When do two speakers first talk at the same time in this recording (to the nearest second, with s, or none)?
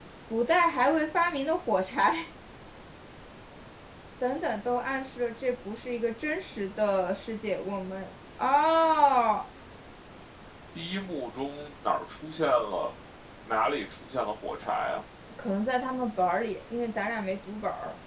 none